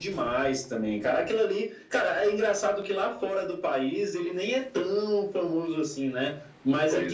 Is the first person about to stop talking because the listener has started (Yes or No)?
No